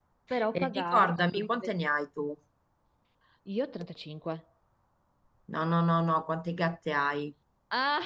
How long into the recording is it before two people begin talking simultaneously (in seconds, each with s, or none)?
0.5 s